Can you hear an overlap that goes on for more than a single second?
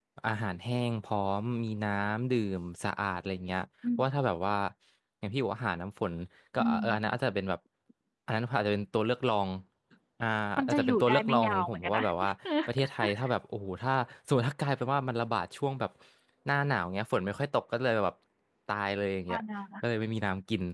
Yes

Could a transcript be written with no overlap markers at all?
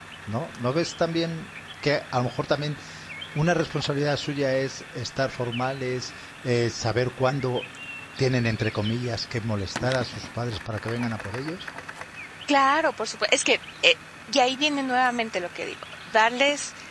Yes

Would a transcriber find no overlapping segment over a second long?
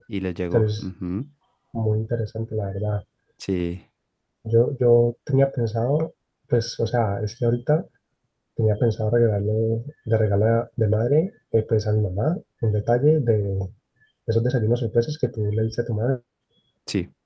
Yes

